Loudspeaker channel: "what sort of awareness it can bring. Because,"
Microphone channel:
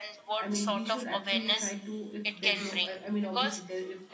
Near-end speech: present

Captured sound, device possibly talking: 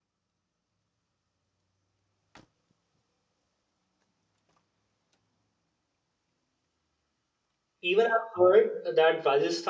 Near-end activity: present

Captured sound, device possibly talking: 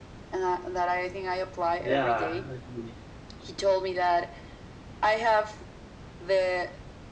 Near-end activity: present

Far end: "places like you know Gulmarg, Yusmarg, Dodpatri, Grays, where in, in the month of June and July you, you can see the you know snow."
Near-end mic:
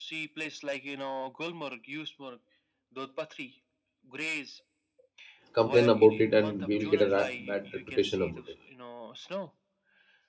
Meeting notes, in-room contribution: present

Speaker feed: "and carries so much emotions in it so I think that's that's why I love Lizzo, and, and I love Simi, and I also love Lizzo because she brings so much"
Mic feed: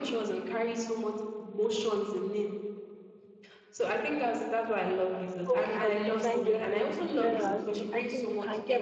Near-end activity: present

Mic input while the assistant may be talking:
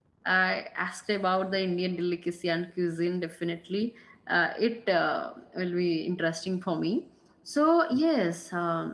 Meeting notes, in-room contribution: present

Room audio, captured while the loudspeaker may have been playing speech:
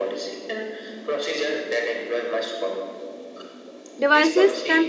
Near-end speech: present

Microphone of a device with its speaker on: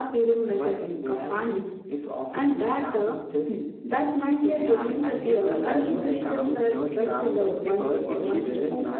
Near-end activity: present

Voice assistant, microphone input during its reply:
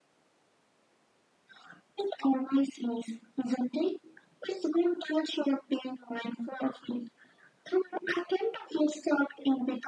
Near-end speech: none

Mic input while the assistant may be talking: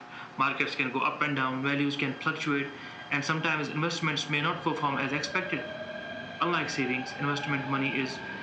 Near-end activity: none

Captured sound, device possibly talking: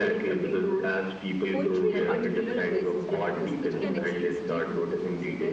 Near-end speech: present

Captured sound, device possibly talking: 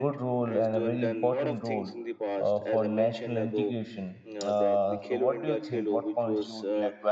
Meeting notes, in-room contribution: present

